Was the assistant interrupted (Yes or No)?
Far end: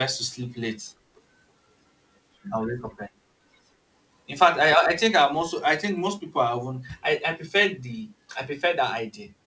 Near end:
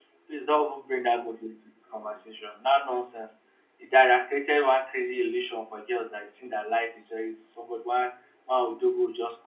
Yes